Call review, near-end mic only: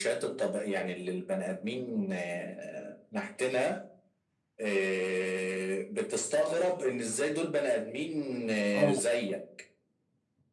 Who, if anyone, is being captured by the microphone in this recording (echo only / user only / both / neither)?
both